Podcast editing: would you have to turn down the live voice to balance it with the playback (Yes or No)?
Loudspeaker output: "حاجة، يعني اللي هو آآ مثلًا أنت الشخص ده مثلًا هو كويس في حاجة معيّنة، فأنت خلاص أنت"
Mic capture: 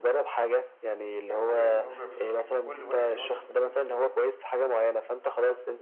No